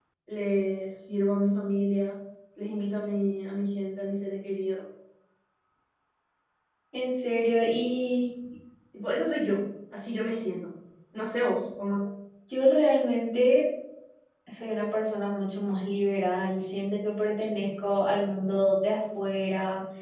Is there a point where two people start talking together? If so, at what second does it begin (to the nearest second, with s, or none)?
none